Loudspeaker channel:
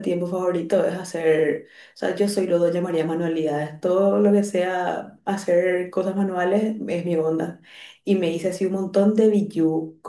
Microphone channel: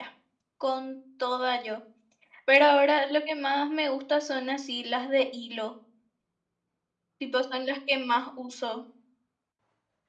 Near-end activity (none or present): present